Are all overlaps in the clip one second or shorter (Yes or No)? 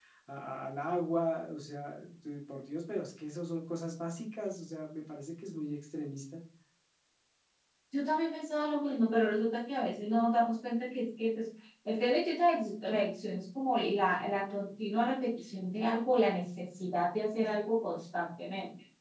Yes